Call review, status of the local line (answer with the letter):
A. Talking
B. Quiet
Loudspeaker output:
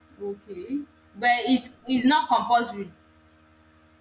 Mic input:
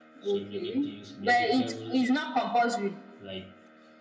A